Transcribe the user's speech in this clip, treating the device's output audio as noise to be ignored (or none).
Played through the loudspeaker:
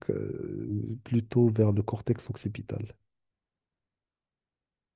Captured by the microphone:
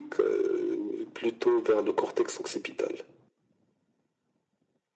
none